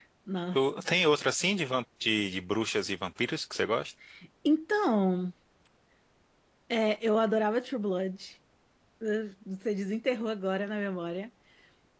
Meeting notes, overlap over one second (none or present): none